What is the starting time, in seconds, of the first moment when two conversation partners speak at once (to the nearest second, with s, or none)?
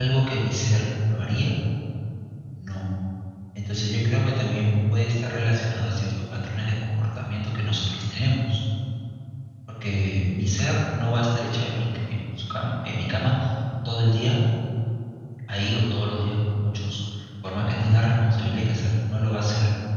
none